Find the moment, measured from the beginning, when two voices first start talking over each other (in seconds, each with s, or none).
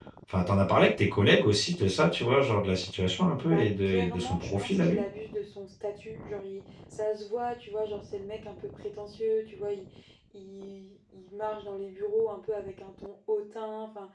3.4 s